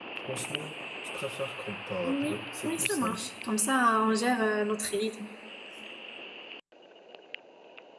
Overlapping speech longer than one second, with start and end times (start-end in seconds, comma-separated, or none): 2.0-3.3